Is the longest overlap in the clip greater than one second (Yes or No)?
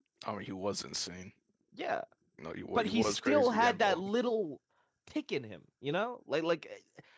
Yes